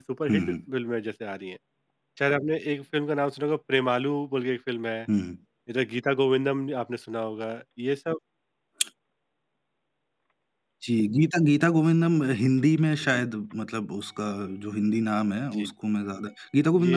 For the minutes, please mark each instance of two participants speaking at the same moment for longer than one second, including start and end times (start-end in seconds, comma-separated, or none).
none